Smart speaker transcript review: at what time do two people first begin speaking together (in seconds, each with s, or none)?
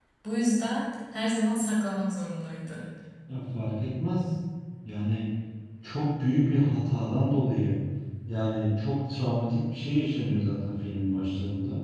none